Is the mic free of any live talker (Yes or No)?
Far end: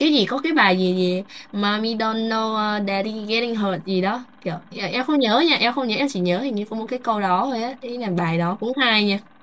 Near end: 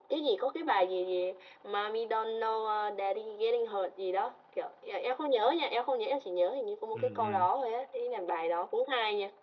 No